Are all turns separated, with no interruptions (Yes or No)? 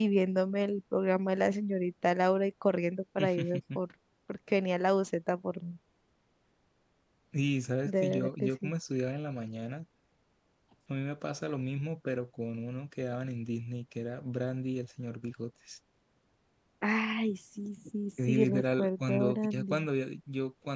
No